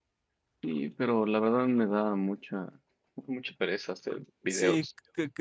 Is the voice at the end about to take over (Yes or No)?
Yes